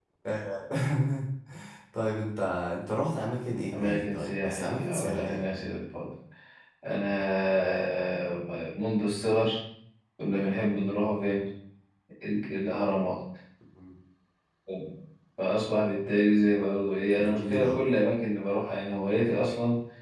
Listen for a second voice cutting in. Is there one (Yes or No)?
Yes